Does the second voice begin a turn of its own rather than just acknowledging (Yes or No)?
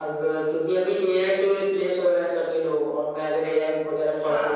Yes